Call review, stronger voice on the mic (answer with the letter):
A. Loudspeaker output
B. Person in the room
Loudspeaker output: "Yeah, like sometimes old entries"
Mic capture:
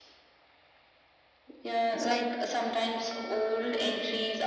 A